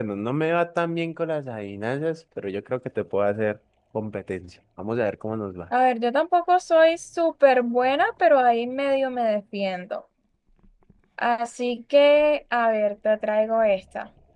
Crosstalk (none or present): none